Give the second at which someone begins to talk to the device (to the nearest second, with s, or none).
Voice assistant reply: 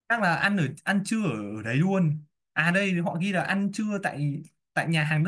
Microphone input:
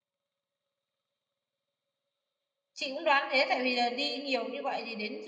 3 s